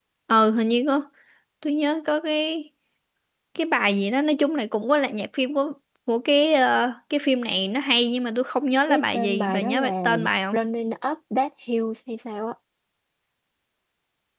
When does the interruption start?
9 s

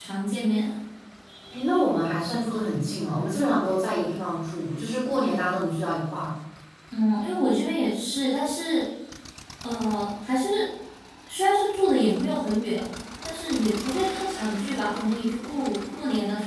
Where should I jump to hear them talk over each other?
none

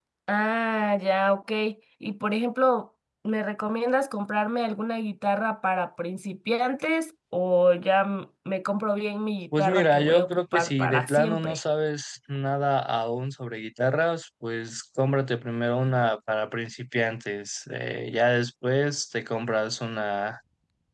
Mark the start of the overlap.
10 s

